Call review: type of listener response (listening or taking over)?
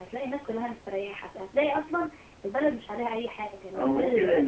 taking over